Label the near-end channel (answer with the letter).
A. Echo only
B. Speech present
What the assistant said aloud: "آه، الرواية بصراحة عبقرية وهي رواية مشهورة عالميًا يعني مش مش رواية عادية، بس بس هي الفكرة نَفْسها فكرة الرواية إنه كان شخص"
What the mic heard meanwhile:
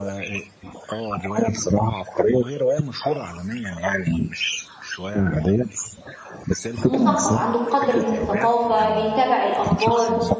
B